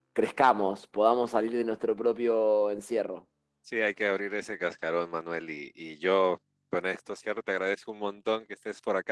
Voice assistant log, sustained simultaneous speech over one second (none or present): none